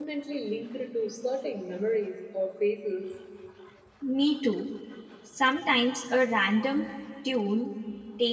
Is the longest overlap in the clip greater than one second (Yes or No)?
No